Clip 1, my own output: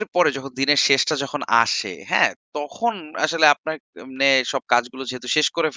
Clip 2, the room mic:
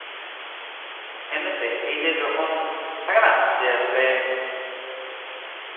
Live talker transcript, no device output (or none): এমনিতে এই যে যখন থাকে না যে আসলে